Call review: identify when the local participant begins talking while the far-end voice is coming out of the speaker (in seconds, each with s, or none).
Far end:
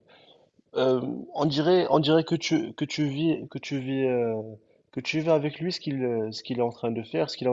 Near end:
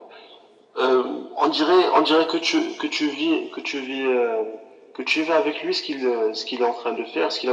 none